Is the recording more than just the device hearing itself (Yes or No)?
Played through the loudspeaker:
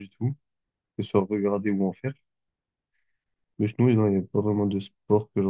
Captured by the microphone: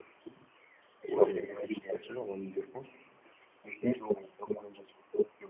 Yes